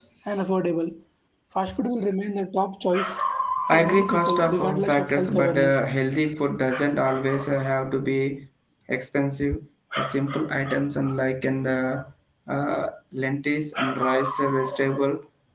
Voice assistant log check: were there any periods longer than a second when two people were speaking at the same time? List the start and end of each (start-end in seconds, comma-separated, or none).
3.7-5.8